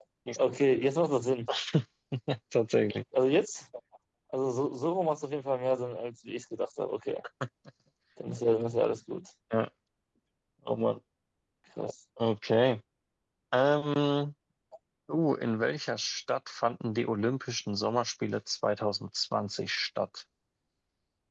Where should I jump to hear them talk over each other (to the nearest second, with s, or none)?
none